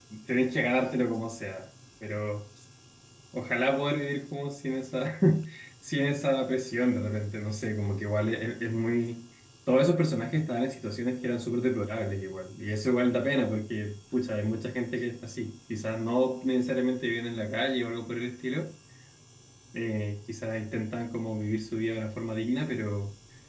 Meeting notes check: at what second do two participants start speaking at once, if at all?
none

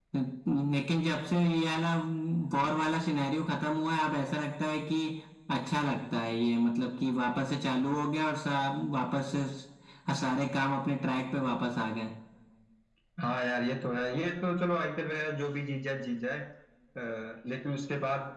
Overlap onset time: none

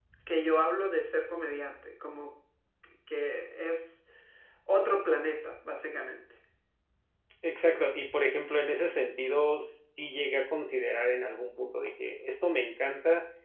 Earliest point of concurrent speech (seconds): none

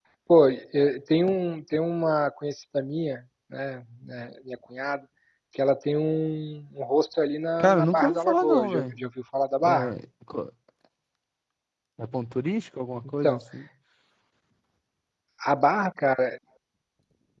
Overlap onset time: 7.6 s

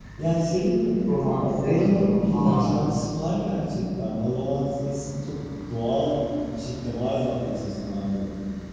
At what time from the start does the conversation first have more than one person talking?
1.1 s

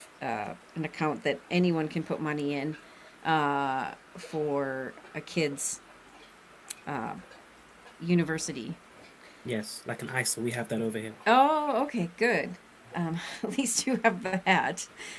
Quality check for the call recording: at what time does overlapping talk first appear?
none

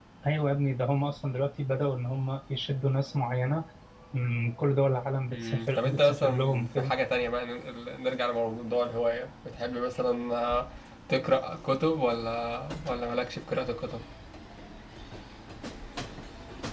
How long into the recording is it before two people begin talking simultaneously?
5.3 s

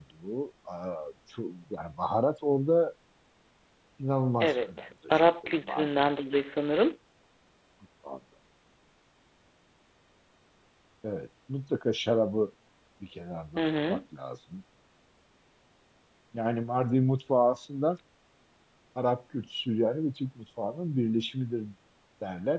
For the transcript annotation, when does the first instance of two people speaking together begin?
4.4 s

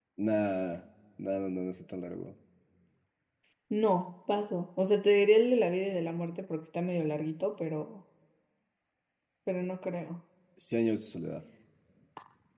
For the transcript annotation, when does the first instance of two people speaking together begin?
none

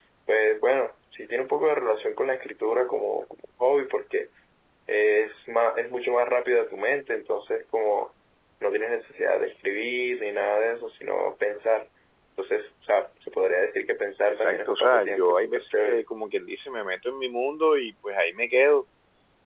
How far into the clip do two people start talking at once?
14.3 s

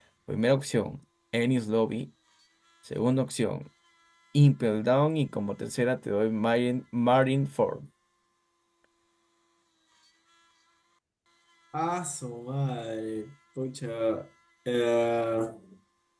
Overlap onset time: none

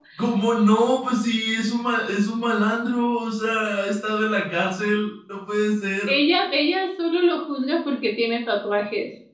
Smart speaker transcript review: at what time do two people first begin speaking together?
none

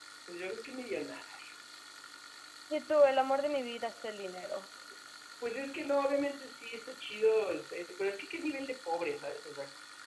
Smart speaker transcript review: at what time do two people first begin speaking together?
none

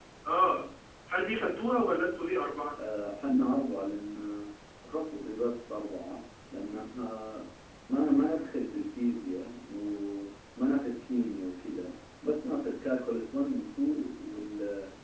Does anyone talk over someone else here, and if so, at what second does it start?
none

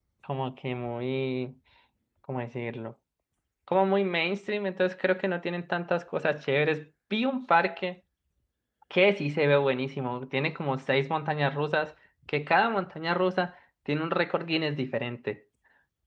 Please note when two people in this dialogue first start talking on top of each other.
none

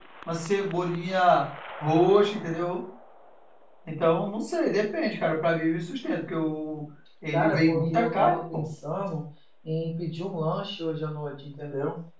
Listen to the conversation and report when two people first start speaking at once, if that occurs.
7.3 s

